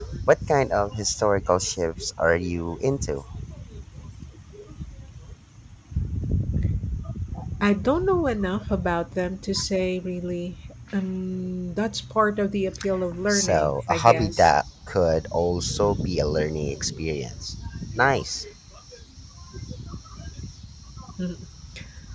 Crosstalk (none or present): present